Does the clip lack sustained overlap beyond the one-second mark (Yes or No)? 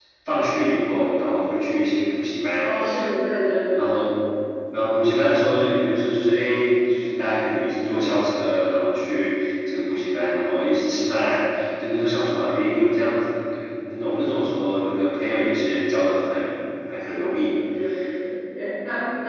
Yes